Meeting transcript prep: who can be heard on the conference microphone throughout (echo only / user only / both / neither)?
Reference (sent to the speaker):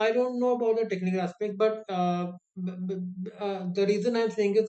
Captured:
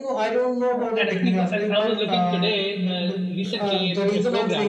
both